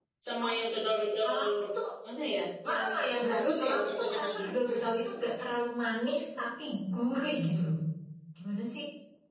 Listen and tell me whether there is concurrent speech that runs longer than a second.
Yes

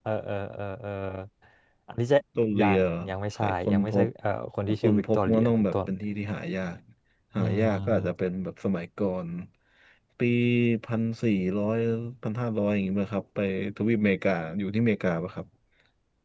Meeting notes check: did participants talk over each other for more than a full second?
Yes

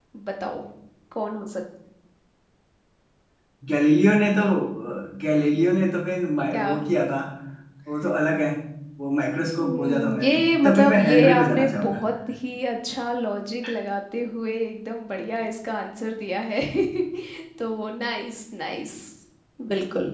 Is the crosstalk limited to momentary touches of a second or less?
No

